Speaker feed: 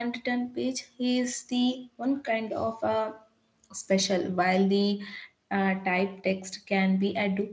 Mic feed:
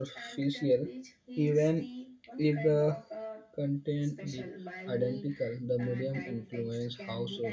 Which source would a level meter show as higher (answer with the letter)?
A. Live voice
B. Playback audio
A